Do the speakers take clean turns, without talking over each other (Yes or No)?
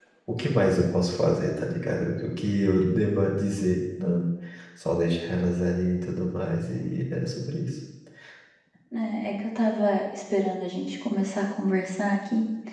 Yes